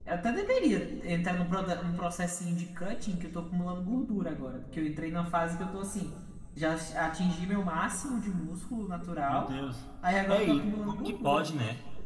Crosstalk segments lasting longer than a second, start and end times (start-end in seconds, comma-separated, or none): 10.3-11.5